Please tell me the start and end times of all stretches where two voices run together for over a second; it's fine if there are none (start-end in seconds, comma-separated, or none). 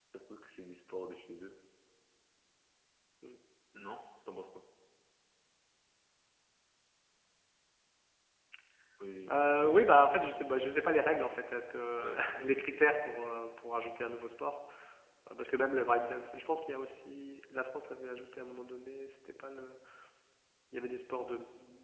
none